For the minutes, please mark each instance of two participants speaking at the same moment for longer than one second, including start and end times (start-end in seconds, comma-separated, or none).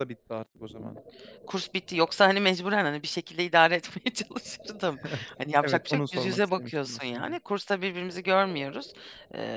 5.6-7.4